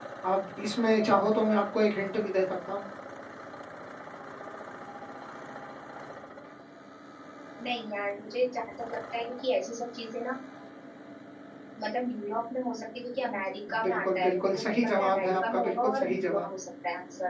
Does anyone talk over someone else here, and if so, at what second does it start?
13.7 s

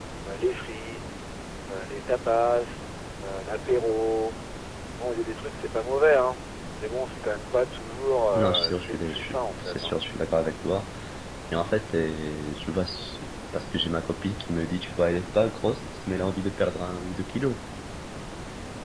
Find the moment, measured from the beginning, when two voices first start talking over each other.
8.3 s

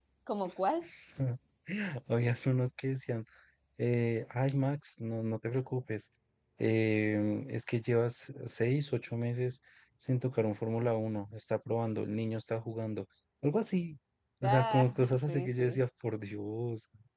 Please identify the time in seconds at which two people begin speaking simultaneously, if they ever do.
14.4 s

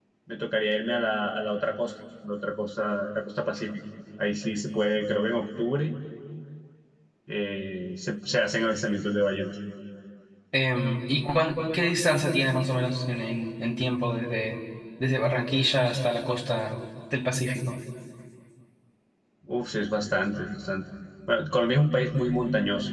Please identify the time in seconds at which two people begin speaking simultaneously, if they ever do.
none

